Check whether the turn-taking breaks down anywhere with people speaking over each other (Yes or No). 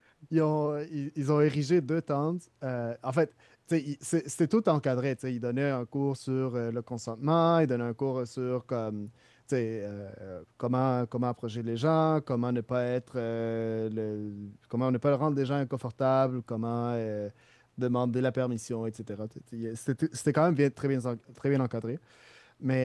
No